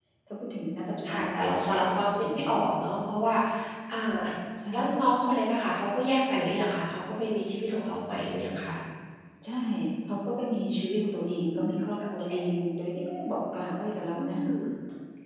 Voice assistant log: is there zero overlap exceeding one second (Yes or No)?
Yes